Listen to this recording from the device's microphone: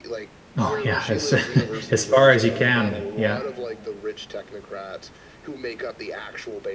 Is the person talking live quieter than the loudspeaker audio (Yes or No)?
No